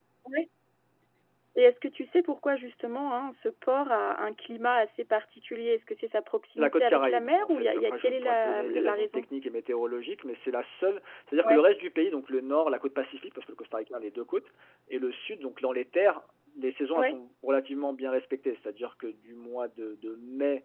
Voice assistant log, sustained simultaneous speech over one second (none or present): present